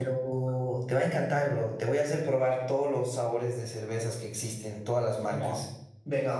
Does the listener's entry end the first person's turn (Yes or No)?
Yes